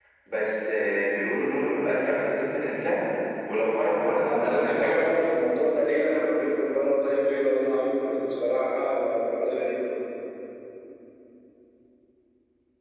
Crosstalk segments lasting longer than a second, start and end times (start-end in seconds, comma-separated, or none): 4.0-5.2